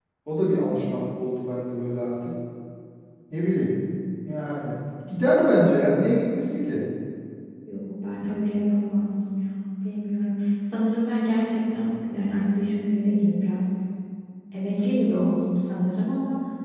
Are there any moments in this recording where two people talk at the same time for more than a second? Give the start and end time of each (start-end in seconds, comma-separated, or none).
none